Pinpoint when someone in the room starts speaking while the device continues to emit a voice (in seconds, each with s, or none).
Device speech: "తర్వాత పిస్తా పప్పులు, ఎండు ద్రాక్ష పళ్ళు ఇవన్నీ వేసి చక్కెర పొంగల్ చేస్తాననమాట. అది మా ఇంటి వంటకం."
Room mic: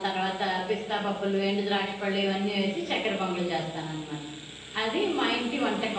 none